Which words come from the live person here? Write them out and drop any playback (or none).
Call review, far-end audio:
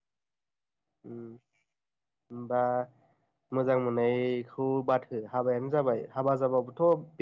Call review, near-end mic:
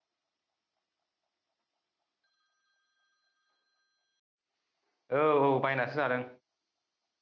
औ औ बायनासो जादों